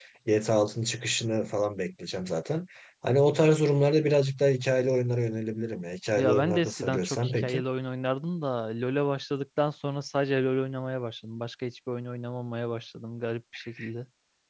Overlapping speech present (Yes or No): Yes